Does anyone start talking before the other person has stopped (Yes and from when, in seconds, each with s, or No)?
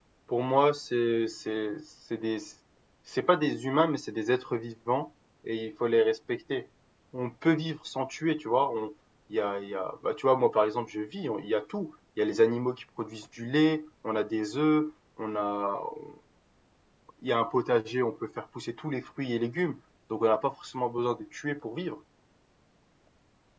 No